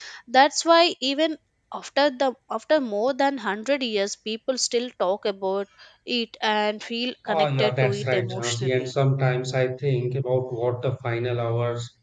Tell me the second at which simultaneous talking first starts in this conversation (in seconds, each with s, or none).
7.3 s